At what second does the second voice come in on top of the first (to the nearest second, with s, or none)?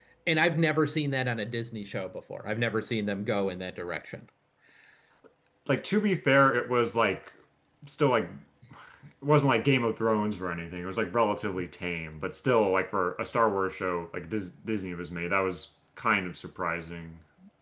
none